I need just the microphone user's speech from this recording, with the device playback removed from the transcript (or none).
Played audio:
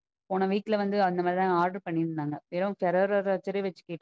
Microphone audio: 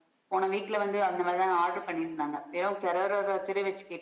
none